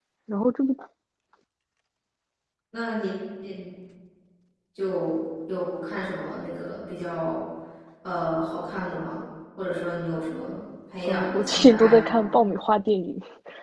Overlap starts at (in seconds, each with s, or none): 11.0 s